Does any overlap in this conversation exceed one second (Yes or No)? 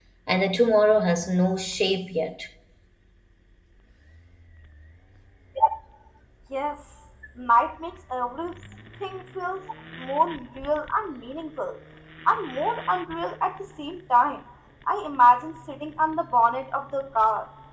No